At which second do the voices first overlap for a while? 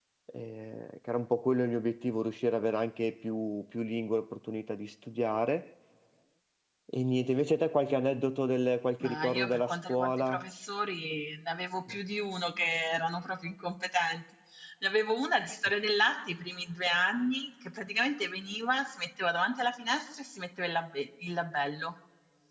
9.0 s

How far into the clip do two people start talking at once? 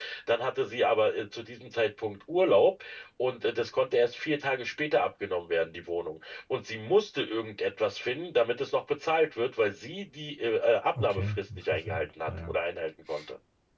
10.9 s

